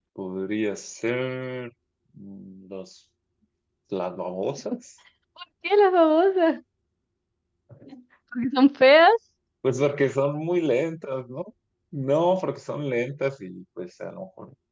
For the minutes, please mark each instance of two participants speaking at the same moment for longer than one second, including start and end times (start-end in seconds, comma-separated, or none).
none